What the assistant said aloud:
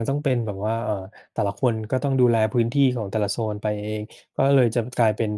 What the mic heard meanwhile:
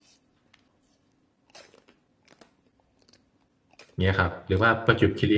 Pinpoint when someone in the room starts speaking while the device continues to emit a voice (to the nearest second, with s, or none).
4 s